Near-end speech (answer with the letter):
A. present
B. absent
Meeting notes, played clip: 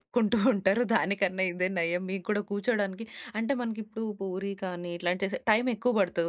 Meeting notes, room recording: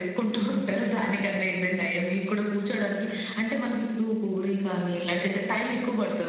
B